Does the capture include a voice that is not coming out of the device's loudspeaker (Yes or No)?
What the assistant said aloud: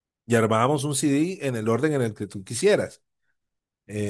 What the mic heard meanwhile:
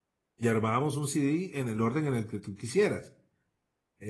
No